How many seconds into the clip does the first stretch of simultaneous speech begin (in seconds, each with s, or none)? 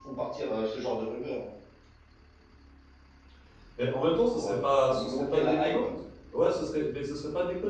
4.1 s